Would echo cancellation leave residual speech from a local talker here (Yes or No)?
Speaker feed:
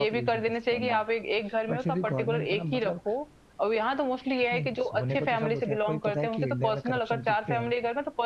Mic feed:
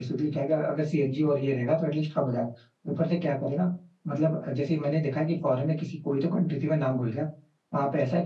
Yes